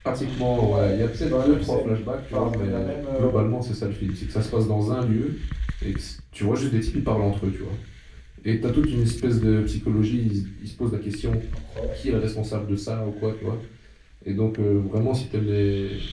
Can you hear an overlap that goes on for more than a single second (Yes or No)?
Yes